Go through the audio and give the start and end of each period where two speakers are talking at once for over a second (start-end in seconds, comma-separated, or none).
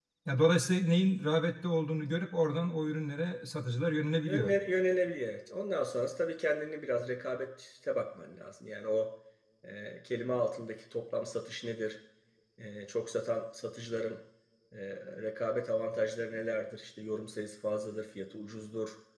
none